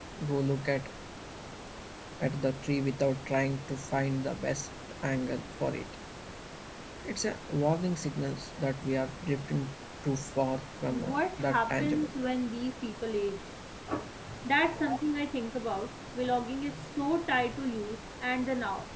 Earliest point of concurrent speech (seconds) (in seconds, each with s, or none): 10.9 s